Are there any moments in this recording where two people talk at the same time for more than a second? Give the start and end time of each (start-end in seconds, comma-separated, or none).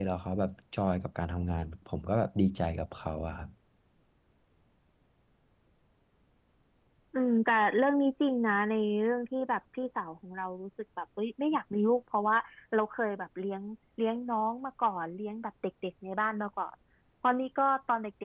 none